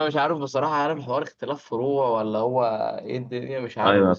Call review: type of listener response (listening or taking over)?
taking over